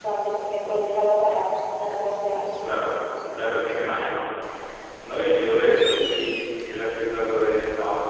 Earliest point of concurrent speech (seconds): none

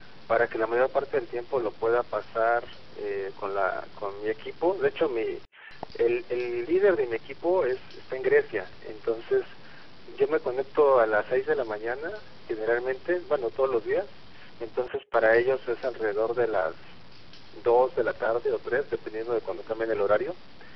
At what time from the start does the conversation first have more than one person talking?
none

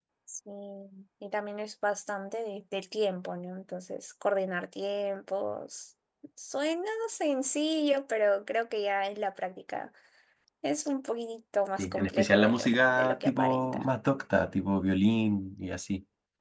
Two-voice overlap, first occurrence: 11.8 s

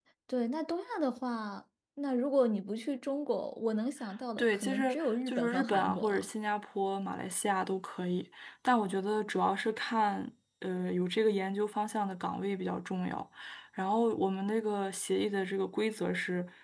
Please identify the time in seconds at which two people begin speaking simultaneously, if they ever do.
4.4 s

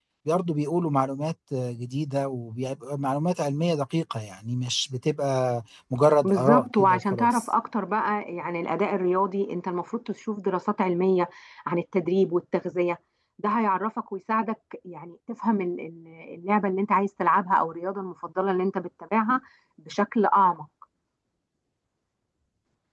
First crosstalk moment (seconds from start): 6.2 s

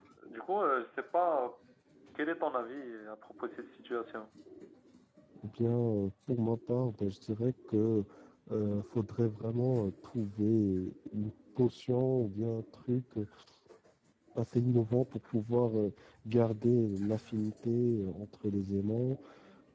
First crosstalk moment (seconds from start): none

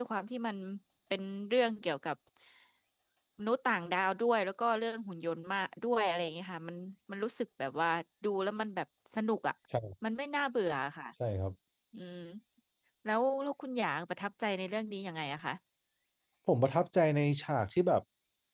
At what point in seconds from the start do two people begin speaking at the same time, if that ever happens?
none

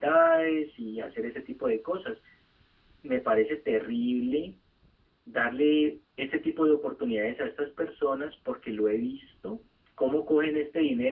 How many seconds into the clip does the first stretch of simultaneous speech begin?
none

